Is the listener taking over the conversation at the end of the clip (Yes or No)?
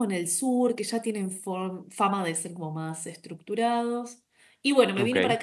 No